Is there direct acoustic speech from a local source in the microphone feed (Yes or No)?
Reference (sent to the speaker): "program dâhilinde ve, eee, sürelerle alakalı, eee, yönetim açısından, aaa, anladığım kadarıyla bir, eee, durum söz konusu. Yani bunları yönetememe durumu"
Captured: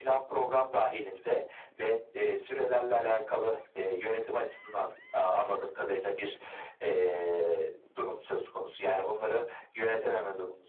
No